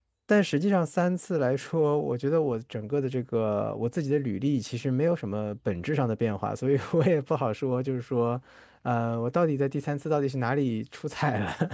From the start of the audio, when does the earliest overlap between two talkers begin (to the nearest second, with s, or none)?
none